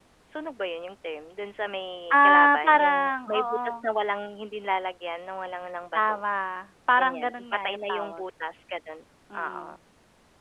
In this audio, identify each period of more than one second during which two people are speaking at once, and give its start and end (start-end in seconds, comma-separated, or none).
2.1-3.9, 7.0-8.2